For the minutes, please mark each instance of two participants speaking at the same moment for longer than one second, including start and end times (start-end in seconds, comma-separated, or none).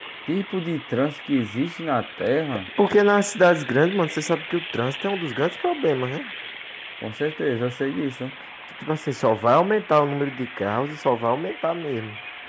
none